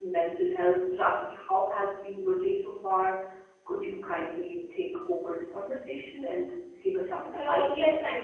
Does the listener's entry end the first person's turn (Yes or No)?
Yes